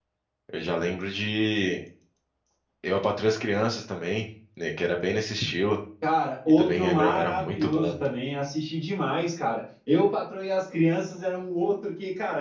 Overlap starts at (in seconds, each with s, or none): 6.5 s